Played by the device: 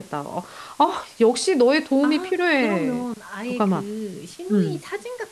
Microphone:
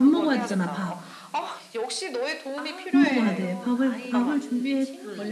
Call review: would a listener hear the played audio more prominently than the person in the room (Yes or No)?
No